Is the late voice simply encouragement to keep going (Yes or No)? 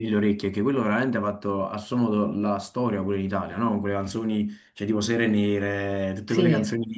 Yes